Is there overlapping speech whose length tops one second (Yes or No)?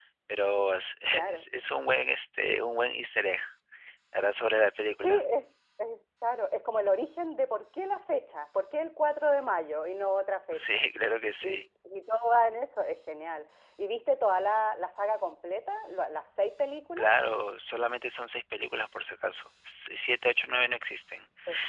No